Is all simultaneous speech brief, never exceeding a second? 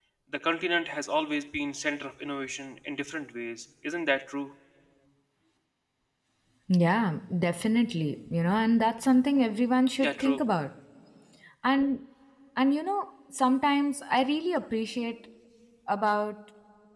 Yes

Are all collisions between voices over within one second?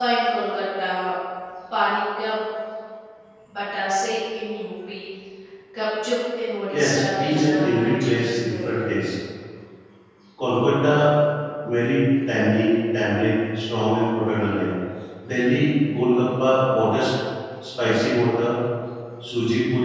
No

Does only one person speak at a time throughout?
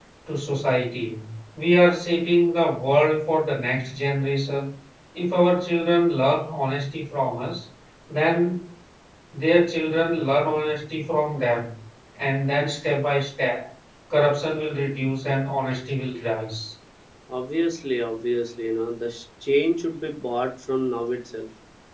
Yes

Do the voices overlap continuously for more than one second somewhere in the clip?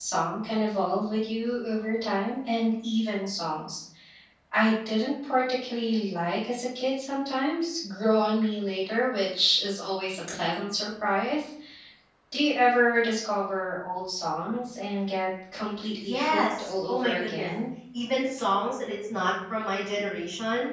Yes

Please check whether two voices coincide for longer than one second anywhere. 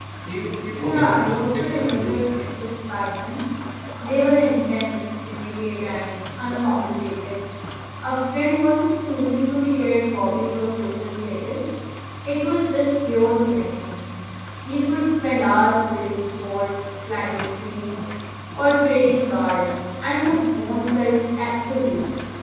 Yes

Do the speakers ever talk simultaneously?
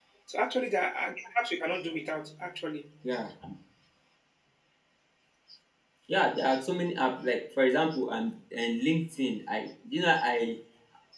No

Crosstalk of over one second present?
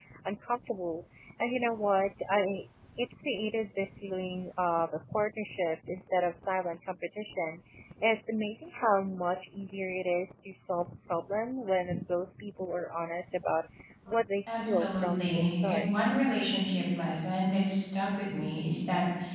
Yes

